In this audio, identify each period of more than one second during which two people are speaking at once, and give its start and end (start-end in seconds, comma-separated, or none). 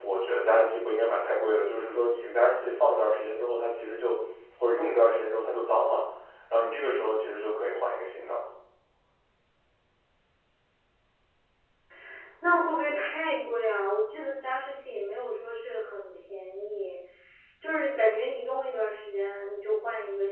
none